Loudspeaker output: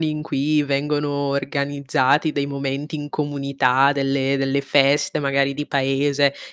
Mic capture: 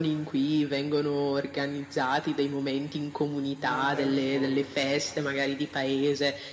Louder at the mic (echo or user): echo